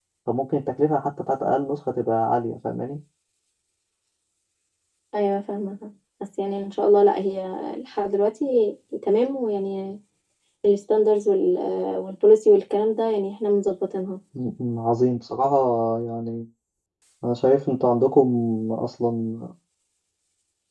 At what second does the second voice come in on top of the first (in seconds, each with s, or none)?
none